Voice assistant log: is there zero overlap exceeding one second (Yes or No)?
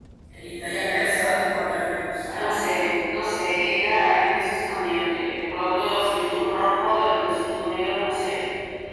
Yes